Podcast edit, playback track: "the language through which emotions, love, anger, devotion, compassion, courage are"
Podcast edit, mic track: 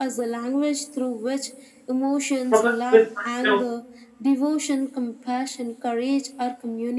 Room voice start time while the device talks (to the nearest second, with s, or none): 2 s